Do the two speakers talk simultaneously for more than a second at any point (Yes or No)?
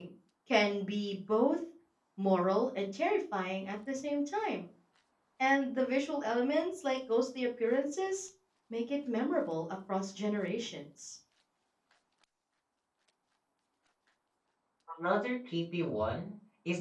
No